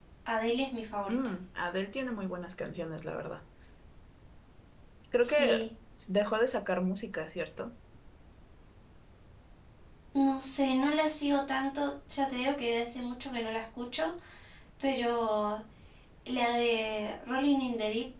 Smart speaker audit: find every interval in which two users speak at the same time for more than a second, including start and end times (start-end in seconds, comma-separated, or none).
none